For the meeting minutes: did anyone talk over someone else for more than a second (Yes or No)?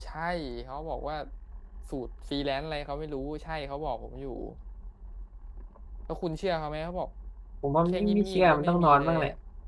Yes